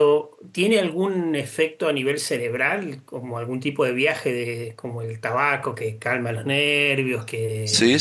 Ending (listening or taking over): taking over